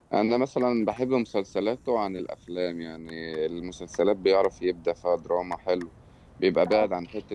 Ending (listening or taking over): listening